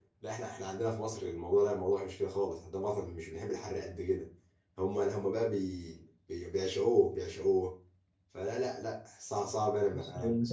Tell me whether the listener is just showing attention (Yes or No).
Yes